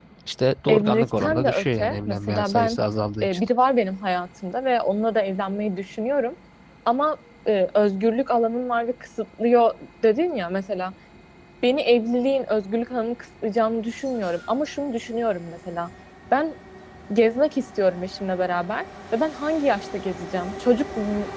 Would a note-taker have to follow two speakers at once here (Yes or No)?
Yes